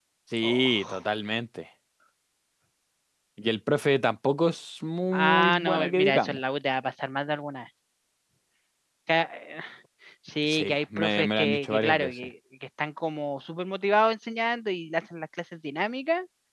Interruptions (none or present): present